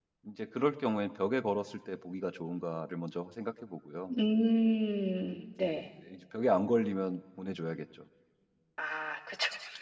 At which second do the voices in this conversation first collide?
none

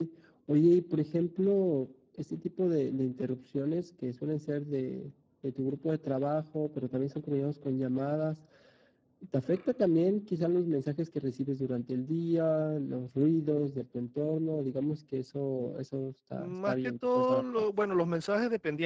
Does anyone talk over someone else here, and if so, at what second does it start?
16.4 s

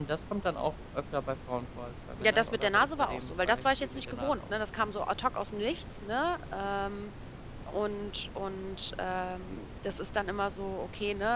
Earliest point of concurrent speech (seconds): 2.2 s

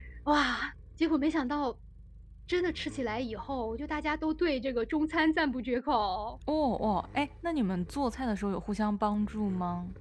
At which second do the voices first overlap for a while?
none

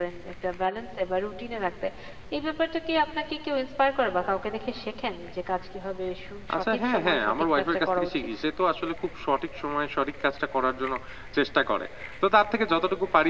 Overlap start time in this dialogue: 6.5 s

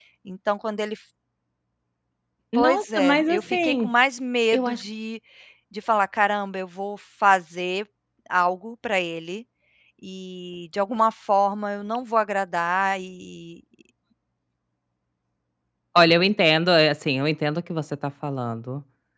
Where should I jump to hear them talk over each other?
2.5 s

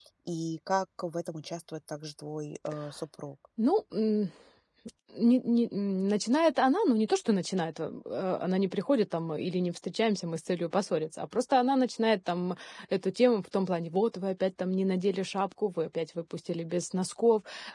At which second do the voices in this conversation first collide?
none

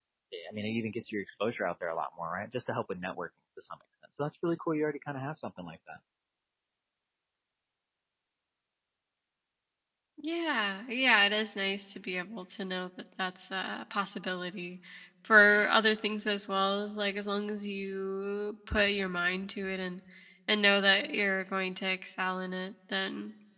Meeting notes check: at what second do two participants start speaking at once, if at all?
none

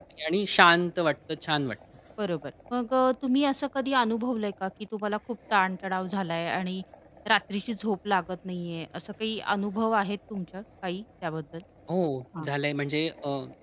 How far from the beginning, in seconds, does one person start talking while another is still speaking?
none

